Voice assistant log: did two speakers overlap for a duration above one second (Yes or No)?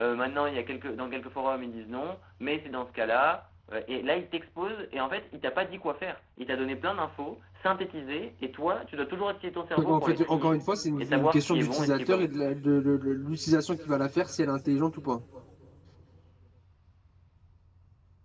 Yes